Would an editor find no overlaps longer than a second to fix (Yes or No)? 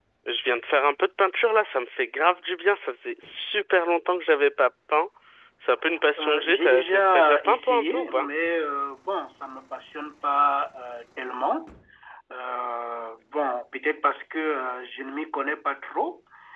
No